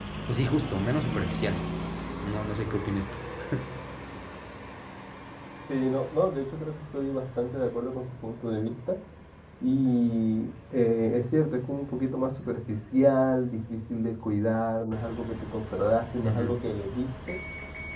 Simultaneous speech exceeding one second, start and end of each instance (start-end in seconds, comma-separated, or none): none